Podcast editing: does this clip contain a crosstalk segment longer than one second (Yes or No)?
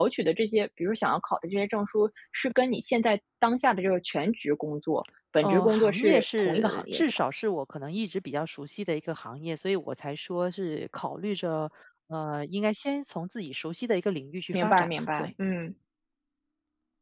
Yes